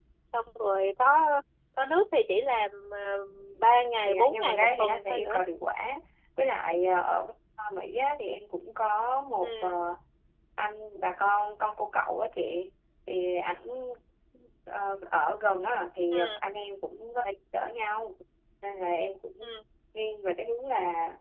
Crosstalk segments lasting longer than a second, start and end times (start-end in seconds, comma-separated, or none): 4.1-5.4